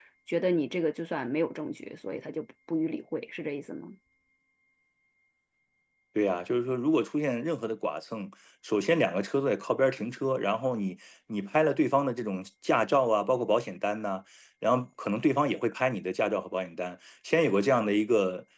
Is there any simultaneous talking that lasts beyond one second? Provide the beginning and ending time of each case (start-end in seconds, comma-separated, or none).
none